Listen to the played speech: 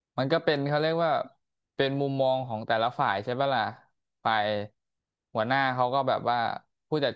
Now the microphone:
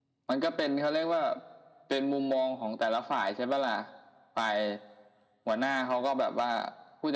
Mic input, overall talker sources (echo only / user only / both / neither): echo only